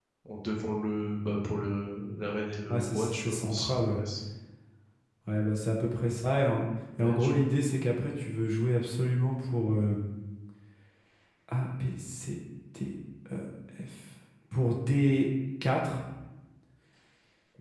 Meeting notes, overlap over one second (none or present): present